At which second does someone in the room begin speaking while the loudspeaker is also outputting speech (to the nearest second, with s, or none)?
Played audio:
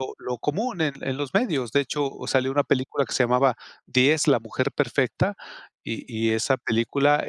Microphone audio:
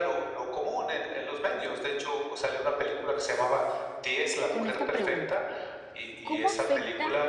5 s